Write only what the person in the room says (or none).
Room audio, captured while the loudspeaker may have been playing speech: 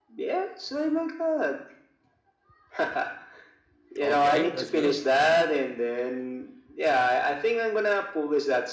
Okay, that's good.